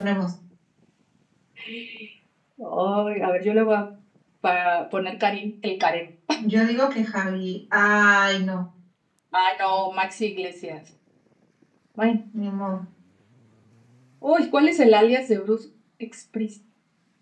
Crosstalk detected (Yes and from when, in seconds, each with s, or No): No